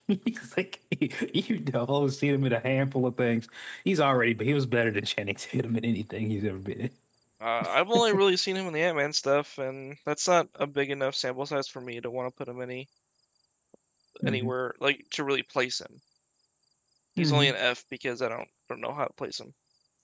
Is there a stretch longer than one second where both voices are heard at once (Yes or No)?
No